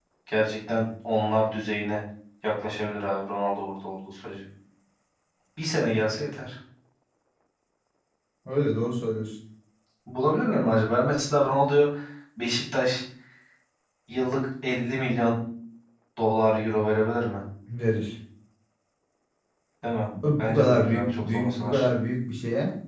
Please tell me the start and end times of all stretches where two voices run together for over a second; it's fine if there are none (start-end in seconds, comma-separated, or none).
20.4-21.9